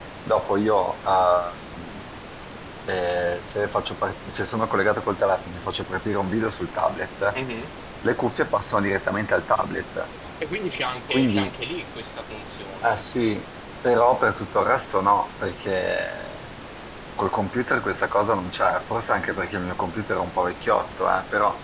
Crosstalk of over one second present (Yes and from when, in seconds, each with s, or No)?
No